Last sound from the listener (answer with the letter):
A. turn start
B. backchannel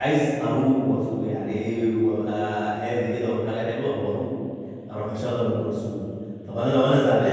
B